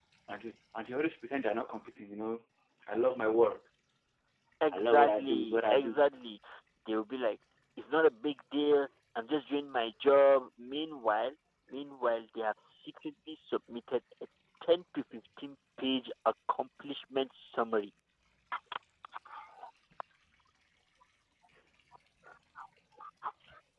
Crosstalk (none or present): present